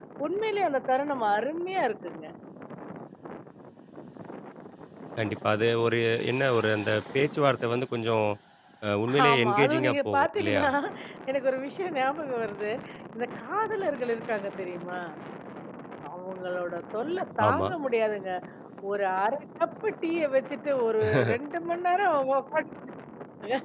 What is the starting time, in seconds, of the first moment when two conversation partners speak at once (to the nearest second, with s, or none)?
9 s